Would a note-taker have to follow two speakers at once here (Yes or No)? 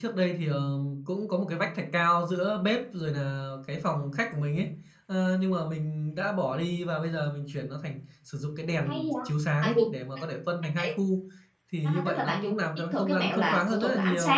Yes